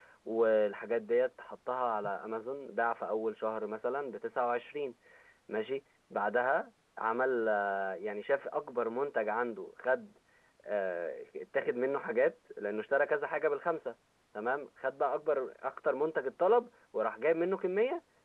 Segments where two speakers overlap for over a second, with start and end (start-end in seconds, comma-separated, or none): none